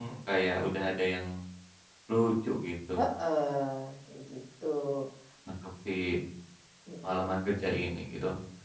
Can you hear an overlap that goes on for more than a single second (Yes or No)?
No